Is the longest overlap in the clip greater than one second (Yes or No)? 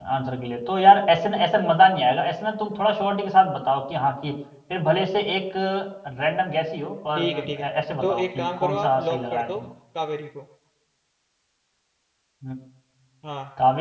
Yes